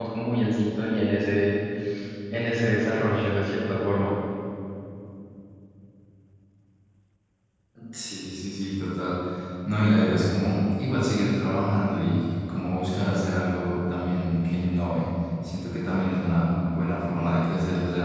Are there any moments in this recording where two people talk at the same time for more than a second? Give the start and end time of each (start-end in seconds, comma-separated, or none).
none